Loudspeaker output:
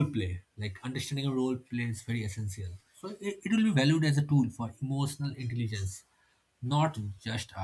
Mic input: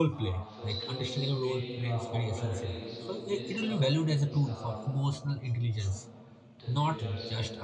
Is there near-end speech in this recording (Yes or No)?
Yes